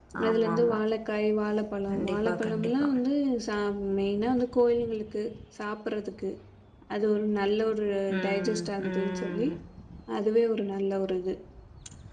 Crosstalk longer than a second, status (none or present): present